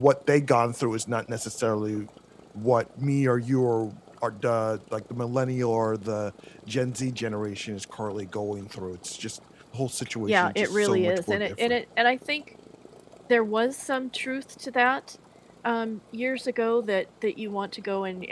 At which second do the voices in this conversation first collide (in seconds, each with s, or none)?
10.3 s